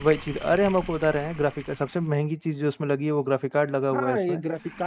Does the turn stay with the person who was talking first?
No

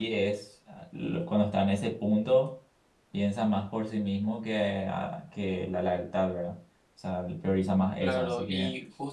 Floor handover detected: Yes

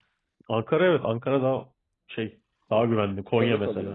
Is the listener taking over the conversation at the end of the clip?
No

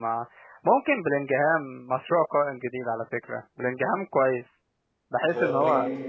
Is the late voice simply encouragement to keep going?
No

